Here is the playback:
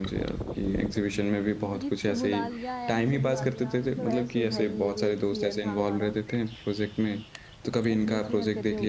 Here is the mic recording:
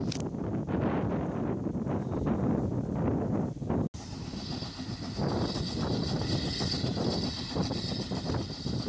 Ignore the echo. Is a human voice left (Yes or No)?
No